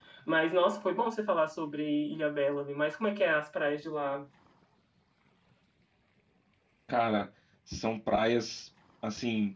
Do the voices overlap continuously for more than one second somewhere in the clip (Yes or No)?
No